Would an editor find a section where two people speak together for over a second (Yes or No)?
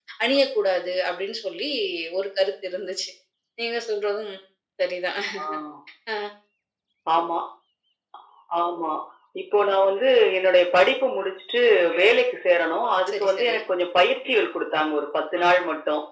No